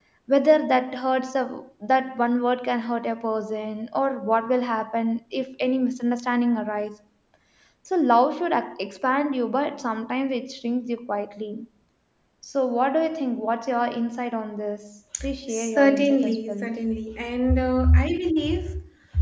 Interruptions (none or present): present